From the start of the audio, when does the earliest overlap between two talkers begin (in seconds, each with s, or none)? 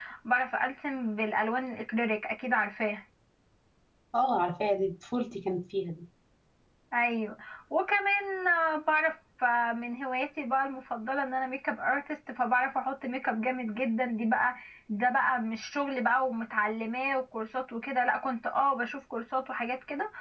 none